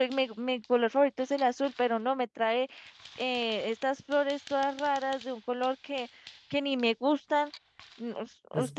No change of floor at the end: No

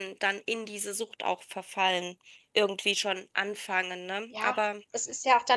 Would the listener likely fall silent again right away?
No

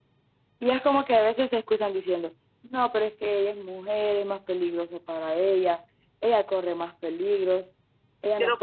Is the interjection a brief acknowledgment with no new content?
No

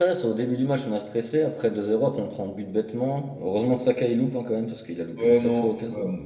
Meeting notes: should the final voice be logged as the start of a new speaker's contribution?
Yes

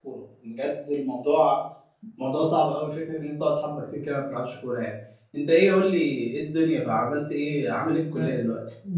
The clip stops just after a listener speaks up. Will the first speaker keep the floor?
No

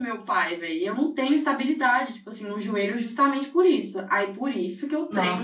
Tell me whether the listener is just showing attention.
Yes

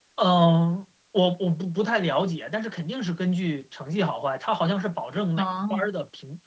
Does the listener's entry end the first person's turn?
No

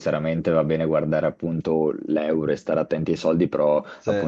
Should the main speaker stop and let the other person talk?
No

